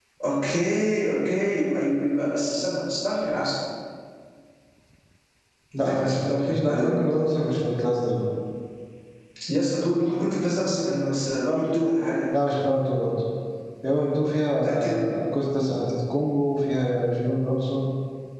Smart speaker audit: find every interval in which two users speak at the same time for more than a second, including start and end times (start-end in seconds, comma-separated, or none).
5.8-7.2